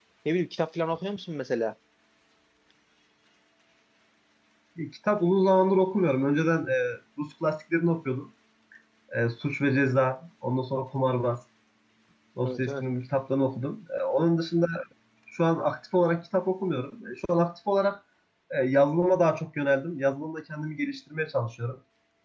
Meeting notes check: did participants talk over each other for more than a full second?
No

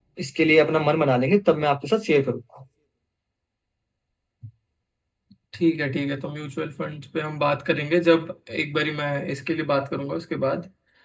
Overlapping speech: No

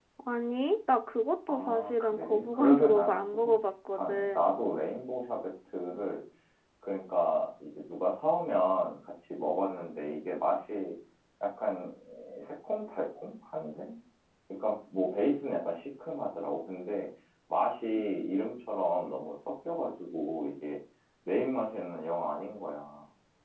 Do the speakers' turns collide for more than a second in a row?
Yes, from 1.5 s

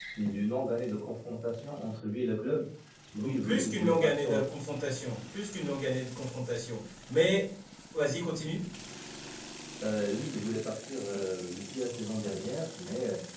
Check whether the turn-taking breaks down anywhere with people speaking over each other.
Yes, from 3.2 s

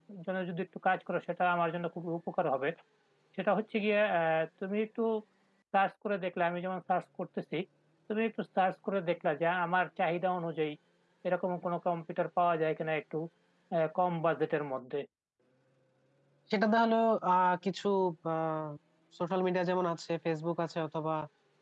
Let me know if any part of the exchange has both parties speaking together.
No

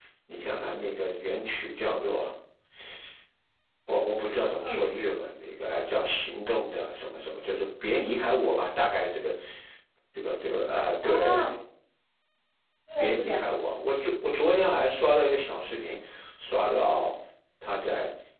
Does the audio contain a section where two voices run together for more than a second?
No

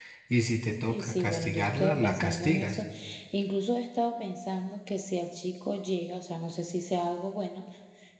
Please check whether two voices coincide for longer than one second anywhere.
Yes, from 0.9 s

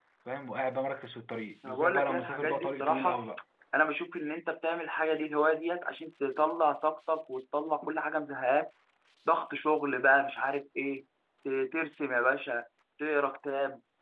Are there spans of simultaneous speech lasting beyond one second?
Yes, from 1.6 s

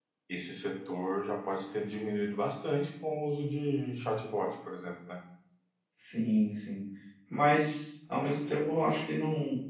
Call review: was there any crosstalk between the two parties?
No

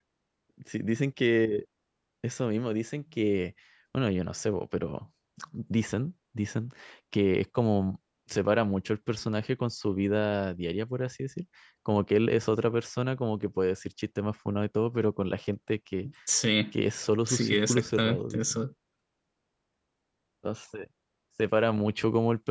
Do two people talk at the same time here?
Yes, from 17.3 s

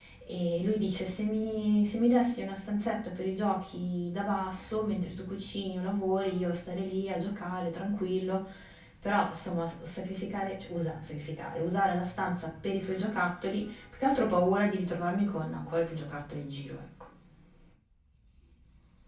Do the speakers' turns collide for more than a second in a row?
No

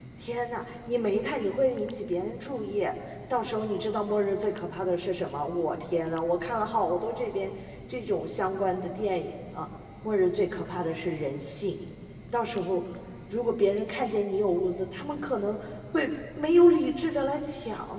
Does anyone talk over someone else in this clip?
No

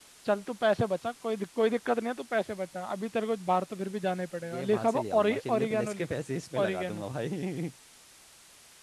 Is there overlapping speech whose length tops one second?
Yes, from 4.5 s

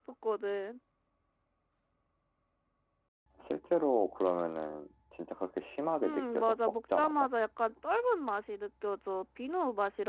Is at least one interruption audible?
Yes, from 6.0 s

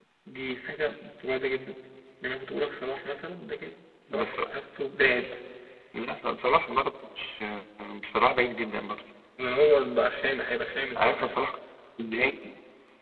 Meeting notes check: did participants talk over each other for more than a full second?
No

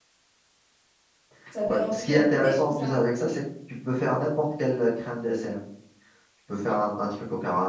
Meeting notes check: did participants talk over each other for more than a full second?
Yes, from 1.7 s

